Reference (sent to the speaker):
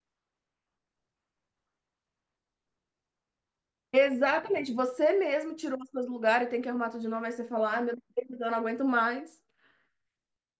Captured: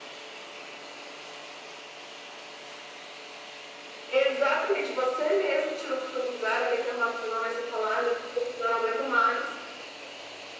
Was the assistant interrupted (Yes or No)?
No